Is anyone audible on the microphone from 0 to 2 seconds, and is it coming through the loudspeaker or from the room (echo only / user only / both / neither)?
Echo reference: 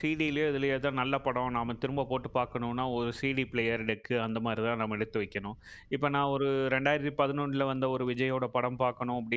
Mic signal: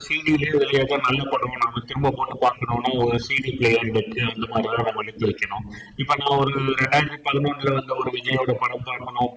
echo only